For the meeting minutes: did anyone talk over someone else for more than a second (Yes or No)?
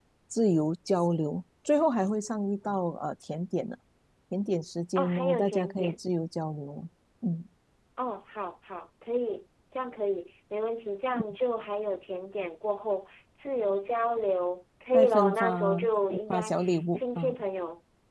Yes